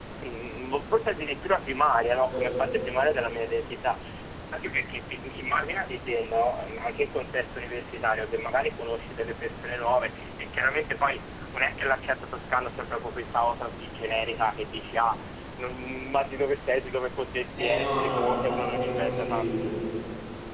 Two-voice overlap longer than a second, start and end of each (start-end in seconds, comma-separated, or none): 17.6-19.5